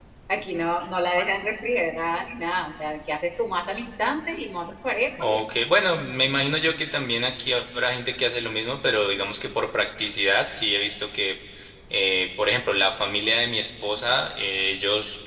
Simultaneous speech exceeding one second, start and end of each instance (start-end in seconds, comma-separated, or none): none